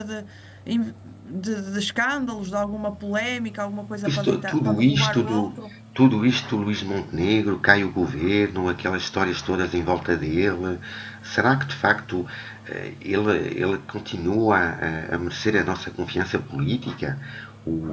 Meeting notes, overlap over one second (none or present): present